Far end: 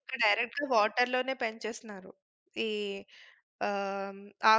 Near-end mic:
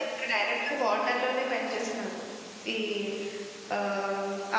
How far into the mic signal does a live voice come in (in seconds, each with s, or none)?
none